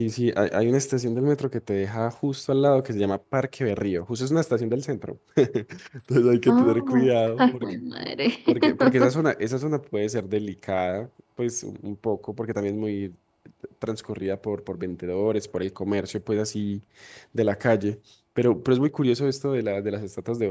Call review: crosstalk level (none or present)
present